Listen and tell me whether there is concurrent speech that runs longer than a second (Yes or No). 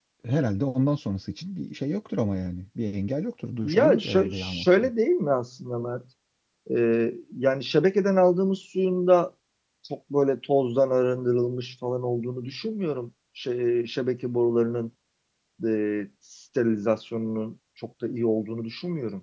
Yes